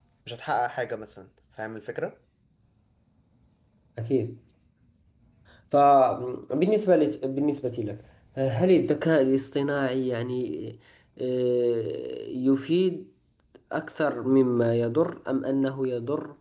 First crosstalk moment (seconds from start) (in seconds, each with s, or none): none